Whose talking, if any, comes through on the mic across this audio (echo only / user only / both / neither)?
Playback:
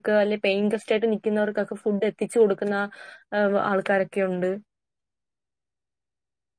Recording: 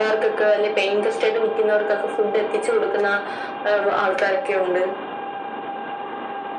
echo only